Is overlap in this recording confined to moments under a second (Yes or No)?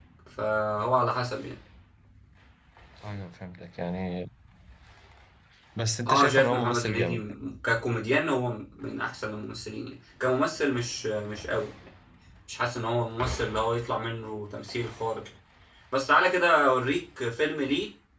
No